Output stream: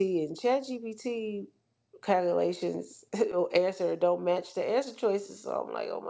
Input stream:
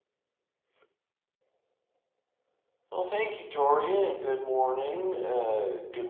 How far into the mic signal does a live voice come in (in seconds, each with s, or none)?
2.9 s